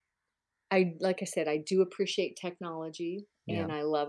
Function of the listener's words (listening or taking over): listening